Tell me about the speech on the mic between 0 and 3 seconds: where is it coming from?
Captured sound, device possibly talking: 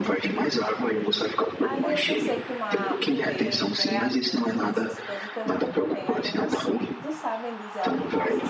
both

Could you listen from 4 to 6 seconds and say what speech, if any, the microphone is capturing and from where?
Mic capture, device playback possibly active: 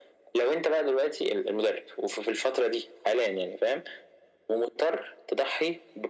echo only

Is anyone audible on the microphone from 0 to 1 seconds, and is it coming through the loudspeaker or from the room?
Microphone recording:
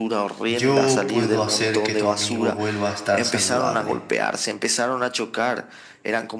both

